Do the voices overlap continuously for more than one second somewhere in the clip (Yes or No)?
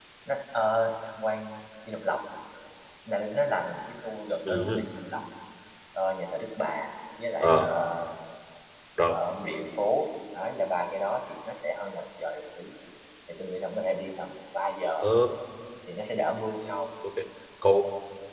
No